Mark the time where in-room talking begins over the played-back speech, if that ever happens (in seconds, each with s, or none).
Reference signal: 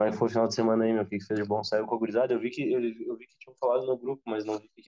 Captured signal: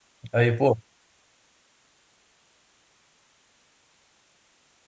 0.3 s